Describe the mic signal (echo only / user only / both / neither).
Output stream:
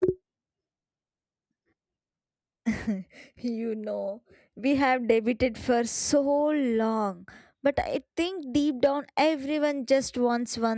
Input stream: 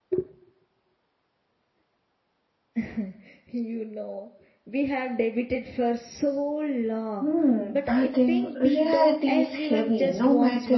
both